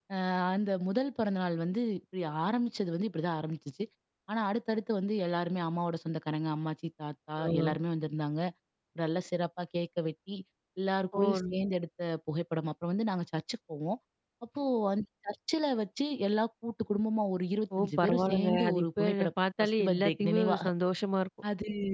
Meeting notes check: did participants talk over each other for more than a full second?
Yes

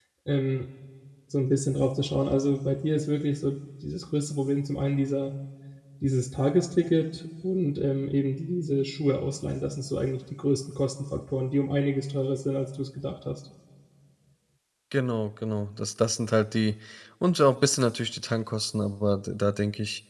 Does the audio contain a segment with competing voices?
No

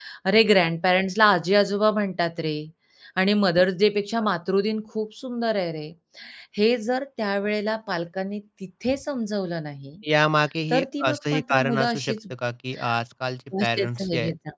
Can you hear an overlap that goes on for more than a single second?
Yes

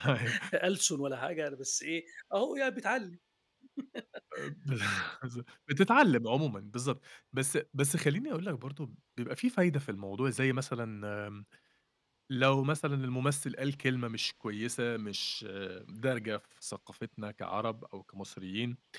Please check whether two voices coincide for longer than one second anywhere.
No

